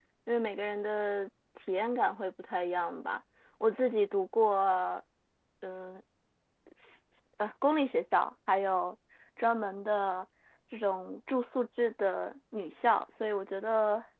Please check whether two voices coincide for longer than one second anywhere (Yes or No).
No